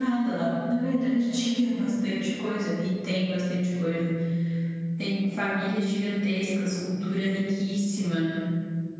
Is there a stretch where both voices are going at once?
No

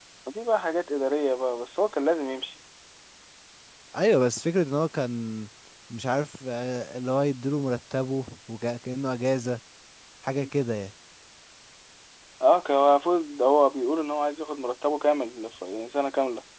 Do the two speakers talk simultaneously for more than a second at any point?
No

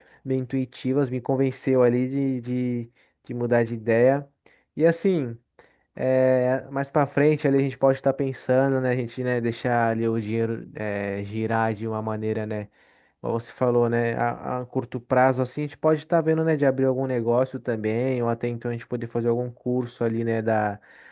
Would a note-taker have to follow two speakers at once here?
No

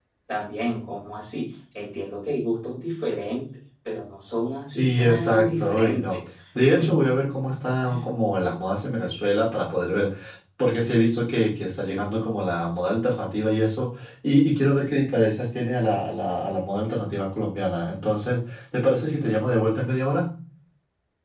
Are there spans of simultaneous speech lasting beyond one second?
Yes, from 4.7 s

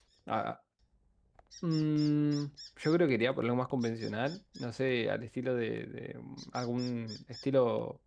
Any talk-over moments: No

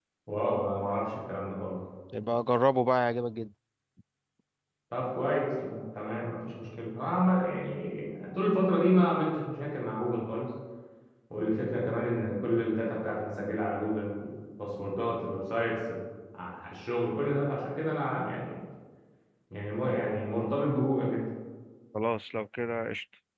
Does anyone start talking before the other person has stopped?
No

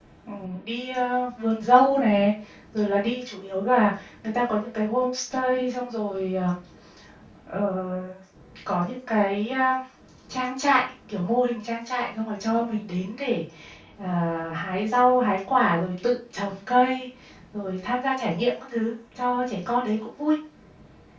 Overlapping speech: No

